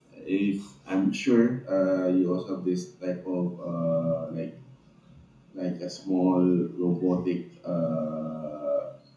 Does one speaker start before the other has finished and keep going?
No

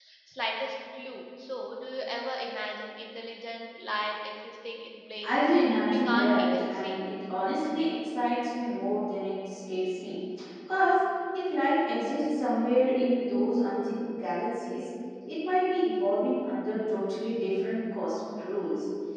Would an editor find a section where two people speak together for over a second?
Yes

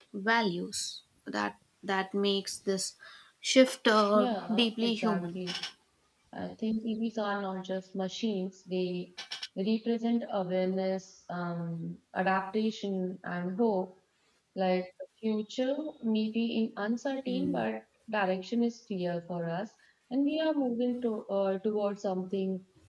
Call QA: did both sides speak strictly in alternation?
No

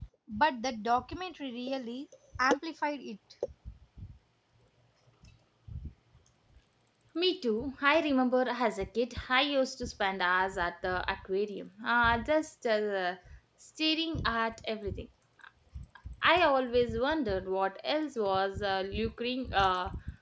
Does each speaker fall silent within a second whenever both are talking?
Yes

